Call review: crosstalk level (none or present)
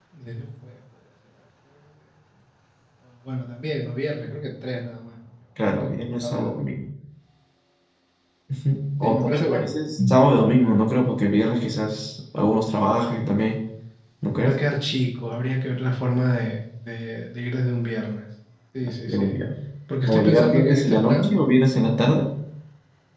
present